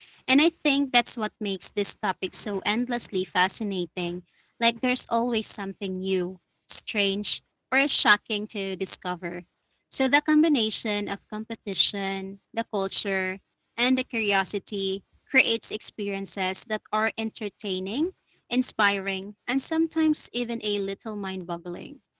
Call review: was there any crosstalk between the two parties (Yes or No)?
No